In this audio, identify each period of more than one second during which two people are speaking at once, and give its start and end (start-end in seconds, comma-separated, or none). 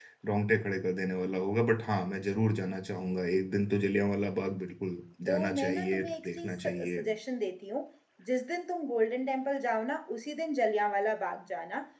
5.3-7.0